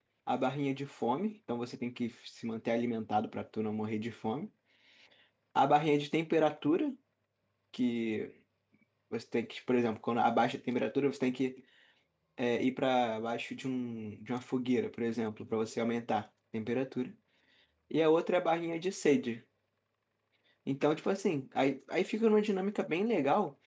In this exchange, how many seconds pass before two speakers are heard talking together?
none

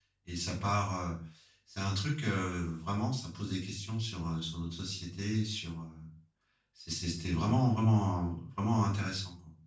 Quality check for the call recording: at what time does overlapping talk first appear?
none

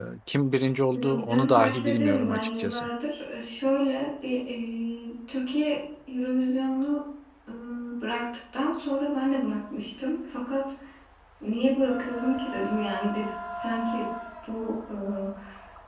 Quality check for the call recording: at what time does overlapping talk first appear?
0.9 s

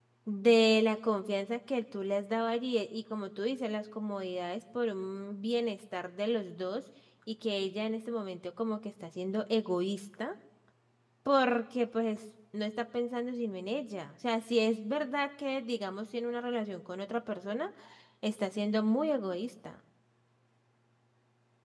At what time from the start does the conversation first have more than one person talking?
none

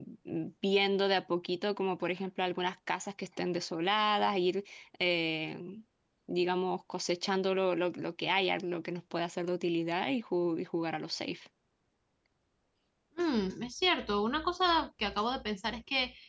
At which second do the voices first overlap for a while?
none

